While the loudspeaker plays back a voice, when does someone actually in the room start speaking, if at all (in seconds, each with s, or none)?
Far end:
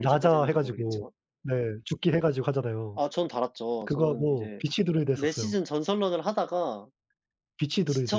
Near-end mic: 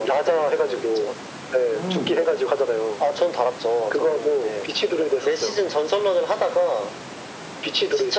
1.7 s